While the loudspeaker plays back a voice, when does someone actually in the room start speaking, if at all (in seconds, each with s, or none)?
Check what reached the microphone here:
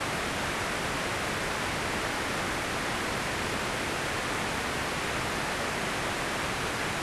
none